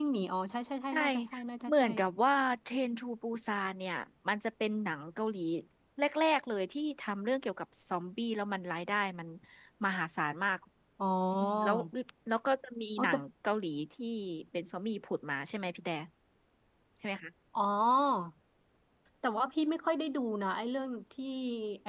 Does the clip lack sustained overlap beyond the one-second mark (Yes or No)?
Yes